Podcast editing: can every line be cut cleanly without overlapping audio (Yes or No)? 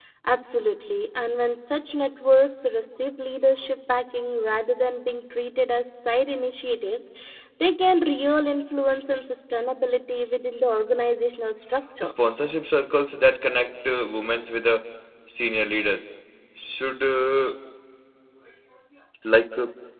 Yes